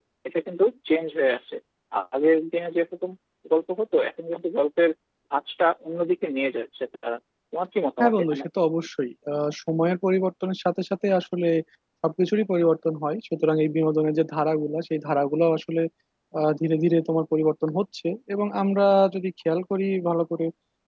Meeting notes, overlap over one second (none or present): none